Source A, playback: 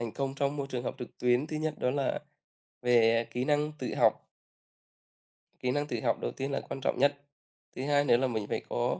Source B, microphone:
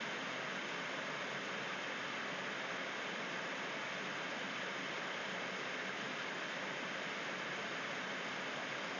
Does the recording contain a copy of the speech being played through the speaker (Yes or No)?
No